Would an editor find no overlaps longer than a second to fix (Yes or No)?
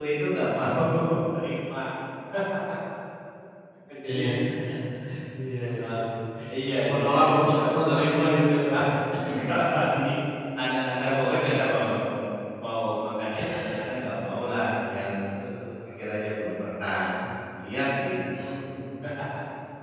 No